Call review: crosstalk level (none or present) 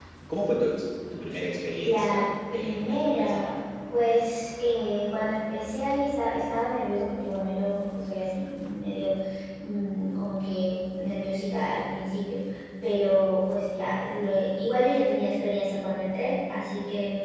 present